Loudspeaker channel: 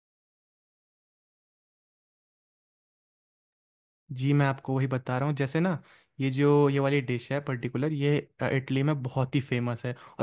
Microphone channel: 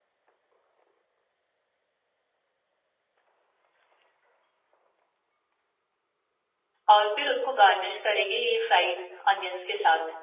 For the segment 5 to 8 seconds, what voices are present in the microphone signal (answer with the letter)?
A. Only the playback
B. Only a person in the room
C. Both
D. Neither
B